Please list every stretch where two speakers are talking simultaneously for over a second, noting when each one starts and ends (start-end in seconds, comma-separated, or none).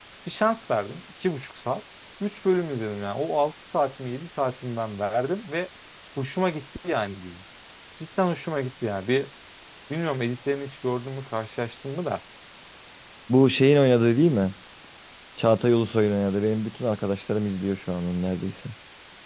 none